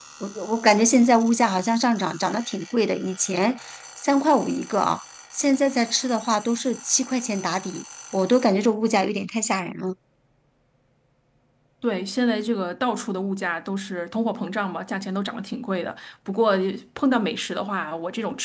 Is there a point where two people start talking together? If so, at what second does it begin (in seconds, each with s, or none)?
none